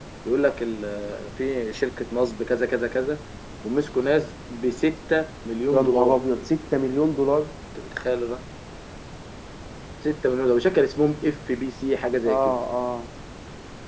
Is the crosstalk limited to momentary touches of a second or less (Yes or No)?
Yes